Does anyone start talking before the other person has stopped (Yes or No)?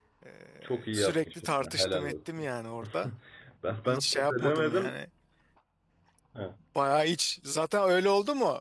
Yes